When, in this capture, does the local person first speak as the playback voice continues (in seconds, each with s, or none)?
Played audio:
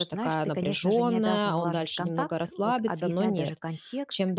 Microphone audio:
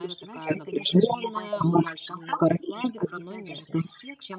none